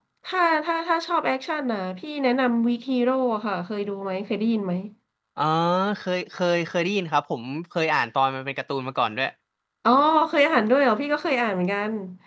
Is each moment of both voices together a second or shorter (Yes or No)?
Yes